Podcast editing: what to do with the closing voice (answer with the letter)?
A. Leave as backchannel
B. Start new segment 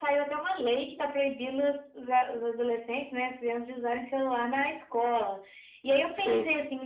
A